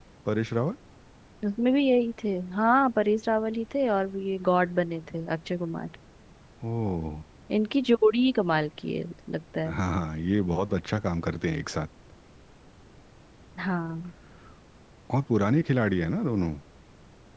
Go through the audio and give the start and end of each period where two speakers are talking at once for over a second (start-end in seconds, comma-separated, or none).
none